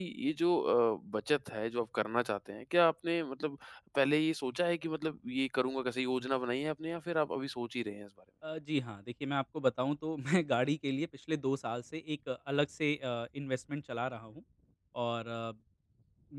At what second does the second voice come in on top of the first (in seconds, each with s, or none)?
none